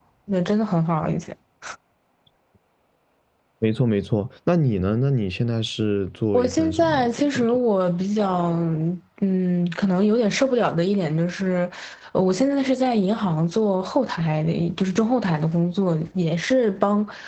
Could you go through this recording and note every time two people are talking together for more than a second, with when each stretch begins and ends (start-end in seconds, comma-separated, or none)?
6.3-7.6